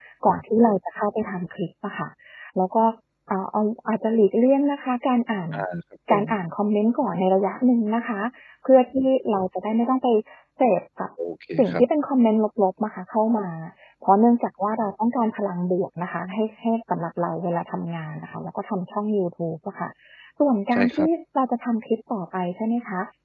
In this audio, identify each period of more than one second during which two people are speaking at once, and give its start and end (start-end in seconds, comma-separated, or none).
none